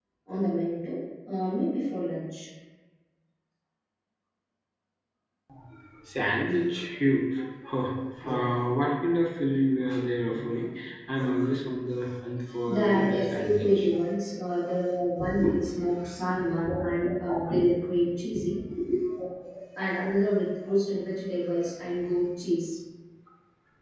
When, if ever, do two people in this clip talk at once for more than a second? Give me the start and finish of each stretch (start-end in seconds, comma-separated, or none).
12.7-13.9